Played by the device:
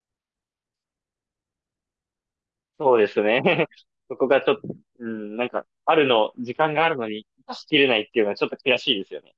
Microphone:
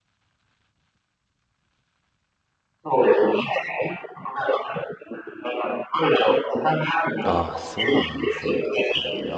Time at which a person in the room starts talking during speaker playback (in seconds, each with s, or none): 7.2 s